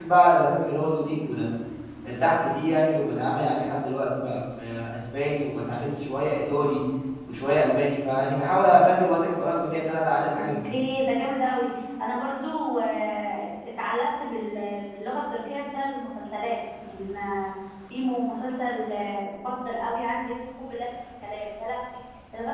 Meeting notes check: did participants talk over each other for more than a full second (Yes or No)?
No